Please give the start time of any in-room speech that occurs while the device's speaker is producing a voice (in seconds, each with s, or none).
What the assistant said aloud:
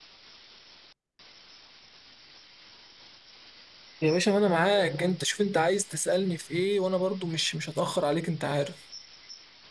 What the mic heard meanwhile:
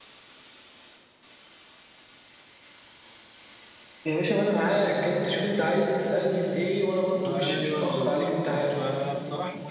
7.2 s